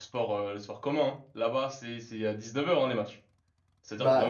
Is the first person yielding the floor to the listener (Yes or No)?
Yes